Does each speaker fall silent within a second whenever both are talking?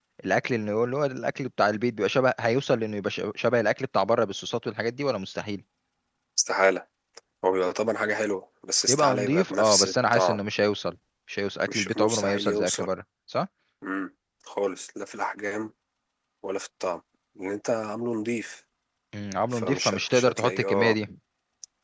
No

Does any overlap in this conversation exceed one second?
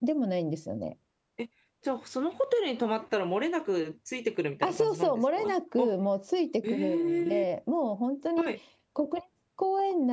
Yes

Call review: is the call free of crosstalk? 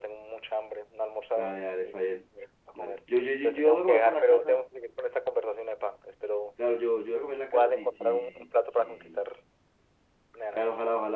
No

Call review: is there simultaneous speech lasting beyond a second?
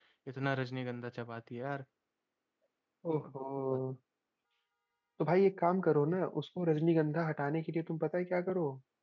No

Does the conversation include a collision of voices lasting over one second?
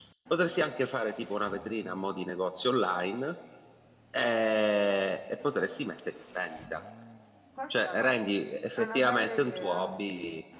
Yes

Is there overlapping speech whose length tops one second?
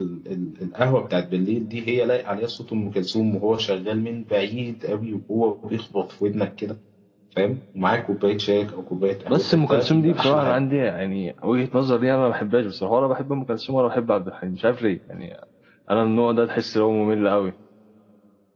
Yes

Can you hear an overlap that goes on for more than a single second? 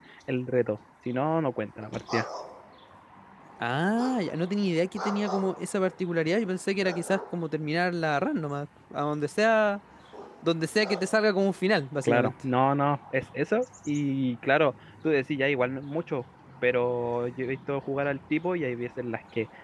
No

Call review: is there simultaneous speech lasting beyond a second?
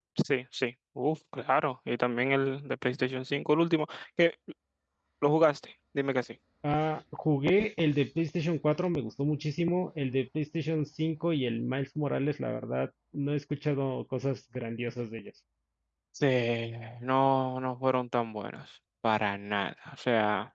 No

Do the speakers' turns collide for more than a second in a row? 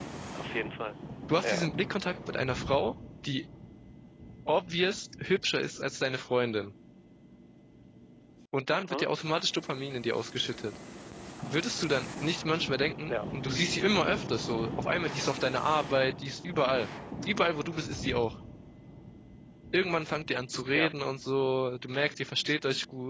No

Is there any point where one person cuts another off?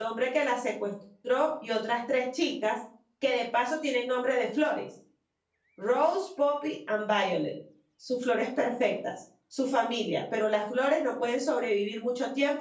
No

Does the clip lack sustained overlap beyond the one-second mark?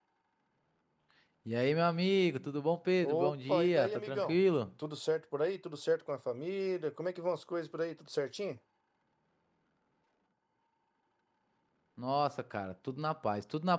No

